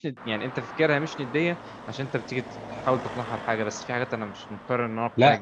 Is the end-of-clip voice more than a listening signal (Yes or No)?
Yes